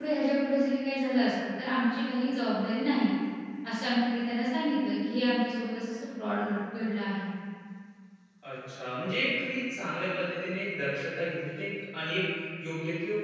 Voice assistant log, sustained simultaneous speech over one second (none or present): none